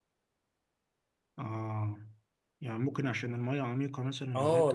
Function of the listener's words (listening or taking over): taking over